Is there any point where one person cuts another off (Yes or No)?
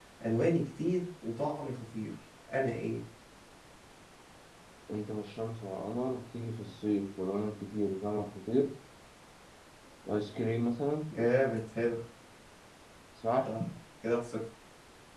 No